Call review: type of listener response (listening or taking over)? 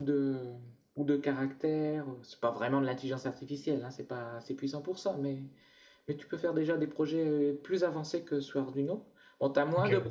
listening